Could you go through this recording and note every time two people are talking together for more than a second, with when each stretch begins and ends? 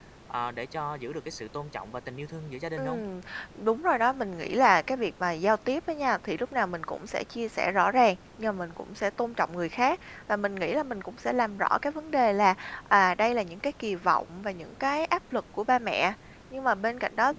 none

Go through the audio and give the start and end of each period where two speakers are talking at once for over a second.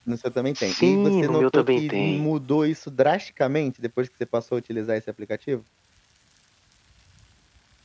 0.6-2.2

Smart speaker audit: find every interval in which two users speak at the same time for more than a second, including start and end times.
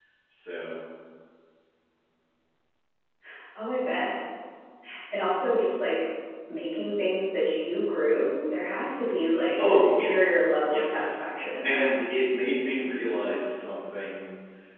9.6-11.2

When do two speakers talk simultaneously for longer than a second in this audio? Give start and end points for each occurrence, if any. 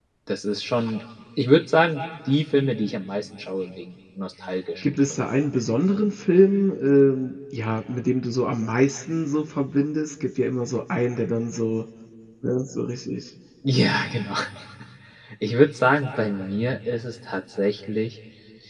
none

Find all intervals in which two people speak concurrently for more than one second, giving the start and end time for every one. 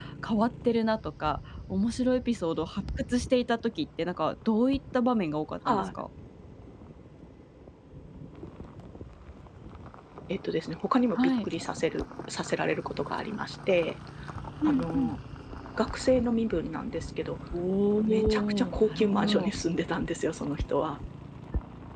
18.1-19.5

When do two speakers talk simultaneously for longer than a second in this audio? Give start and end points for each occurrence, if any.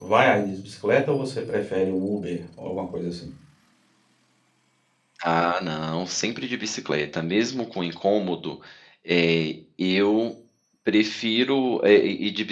none

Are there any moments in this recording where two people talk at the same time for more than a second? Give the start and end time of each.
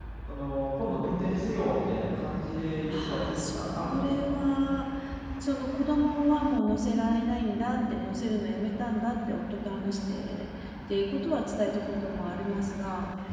2.9-4.4

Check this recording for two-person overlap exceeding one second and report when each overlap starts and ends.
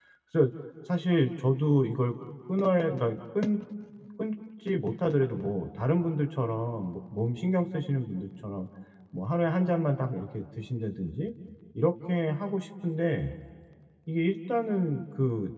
none

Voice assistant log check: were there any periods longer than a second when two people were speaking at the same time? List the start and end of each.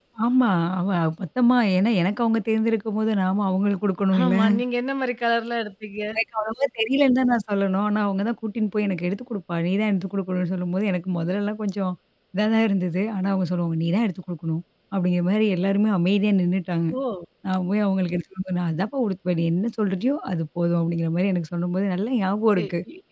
none

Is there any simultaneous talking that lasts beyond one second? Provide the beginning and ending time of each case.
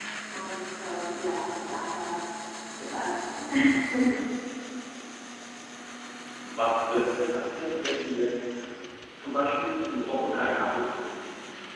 none

